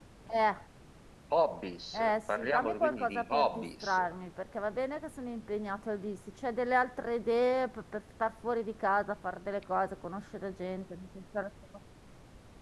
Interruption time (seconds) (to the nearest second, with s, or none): 2 s